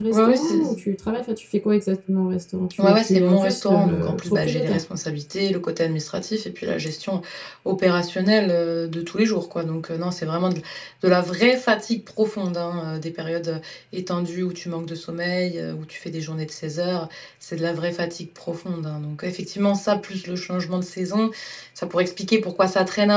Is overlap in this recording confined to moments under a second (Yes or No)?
No